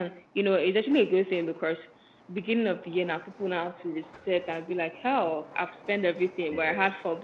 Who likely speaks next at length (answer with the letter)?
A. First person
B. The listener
A